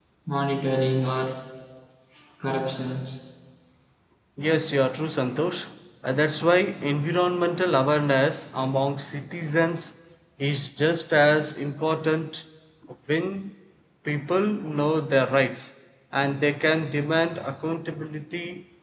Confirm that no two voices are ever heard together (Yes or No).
Yes